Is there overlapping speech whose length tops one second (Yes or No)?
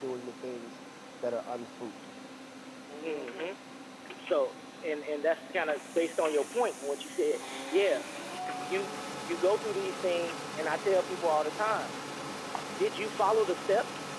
No